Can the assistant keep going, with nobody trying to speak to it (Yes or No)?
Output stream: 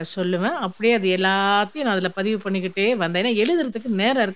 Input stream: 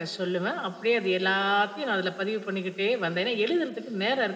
Yes